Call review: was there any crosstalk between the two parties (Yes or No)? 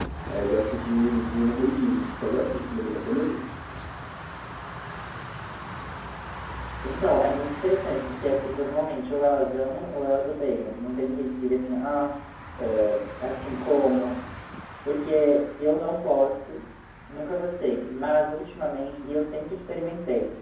No